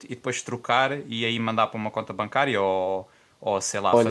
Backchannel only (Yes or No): No